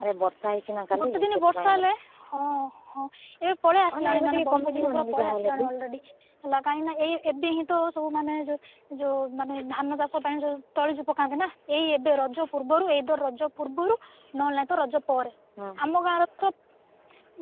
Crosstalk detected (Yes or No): Yes